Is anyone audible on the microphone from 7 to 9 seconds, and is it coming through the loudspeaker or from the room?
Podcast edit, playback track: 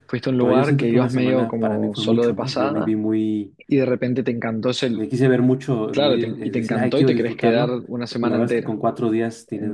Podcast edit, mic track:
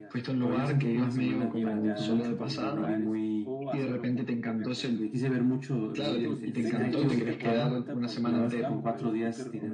both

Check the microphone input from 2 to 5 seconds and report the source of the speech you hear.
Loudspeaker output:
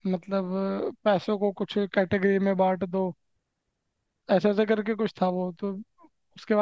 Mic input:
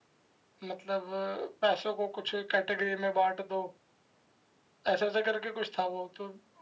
echo only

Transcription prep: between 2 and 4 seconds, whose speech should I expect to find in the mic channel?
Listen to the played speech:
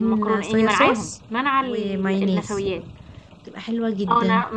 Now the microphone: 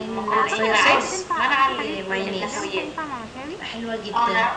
both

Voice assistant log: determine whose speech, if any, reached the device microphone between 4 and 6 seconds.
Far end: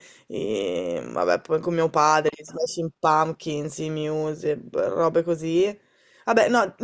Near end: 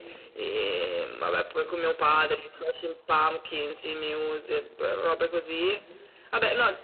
echo only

